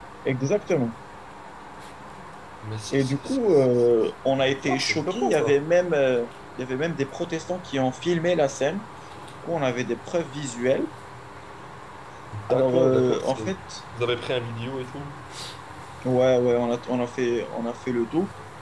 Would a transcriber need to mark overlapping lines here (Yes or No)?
Yes